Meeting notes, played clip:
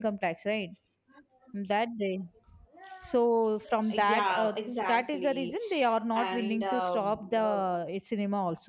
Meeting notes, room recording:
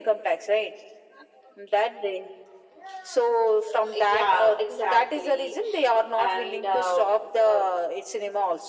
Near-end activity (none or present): none